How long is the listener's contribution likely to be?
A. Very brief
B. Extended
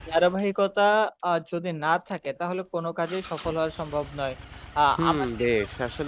B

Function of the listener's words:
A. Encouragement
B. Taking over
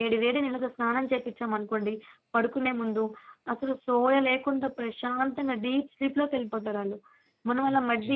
B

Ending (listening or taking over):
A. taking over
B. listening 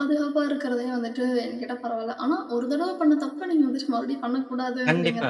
A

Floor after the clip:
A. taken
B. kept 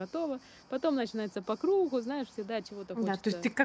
A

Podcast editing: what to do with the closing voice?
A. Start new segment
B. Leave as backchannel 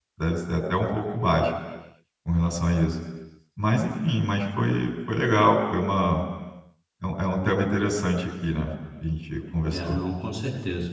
A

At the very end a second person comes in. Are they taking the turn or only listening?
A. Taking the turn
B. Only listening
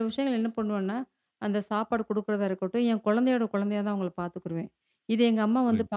B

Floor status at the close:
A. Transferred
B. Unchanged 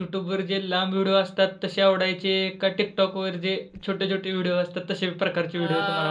A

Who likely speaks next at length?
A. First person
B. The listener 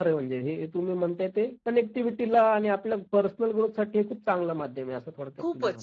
B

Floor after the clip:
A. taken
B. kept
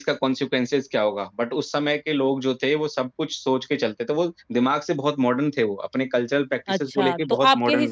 A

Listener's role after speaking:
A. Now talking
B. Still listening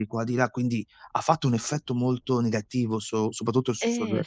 A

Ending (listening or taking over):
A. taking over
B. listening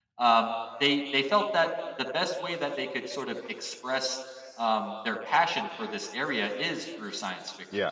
B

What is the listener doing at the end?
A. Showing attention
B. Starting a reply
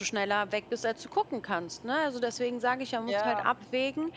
A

